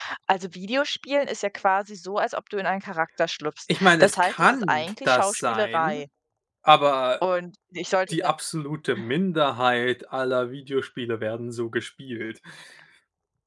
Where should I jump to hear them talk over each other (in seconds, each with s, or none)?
3.7 s